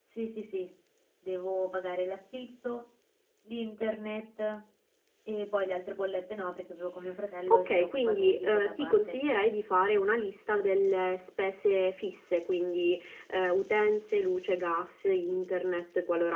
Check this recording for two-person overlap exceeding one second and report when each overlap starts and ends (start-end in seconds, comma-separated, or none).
7.5-9.2